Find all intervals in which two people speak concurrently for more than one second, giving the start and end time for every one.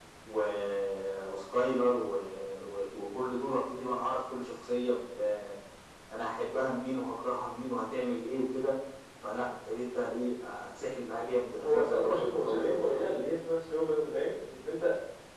11.6-13.1

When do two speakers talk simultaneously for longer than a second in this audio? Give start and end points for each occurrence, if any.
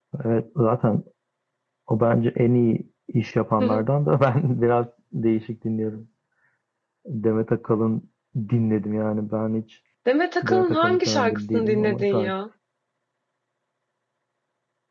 10.4-12.3

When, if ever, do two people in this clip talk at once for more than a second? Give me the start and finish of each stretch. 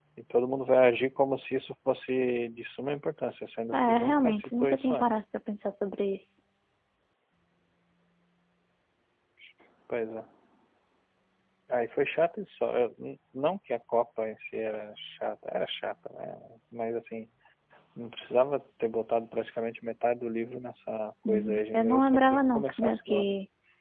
3.7-5.1, 21.3-23.3

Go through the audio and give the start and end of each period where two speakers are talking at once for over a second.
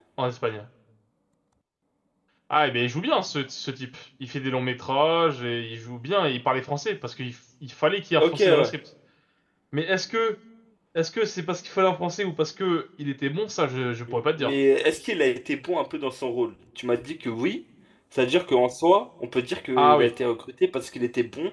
none

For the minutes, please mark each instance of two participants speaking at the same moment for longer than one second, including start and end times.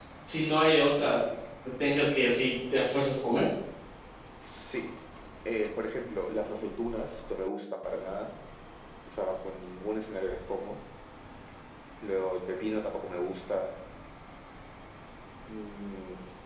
none

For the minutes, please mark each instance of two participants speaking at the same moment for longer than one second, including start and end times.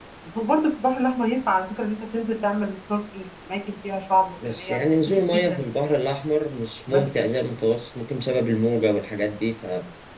4.5-5.8

